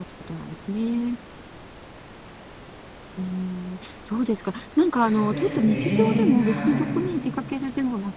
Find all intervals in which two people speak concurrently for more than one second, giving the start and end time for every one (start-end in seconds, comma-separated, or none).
5.0-6.8